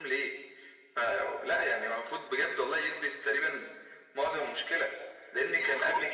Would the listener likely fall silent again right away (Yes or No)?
Yes